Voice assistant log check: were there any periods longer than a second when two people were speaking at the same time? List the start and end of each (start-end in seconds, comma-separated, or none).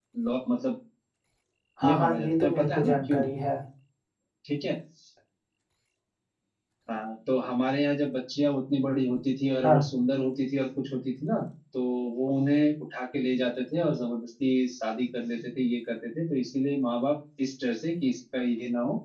1.8-3.2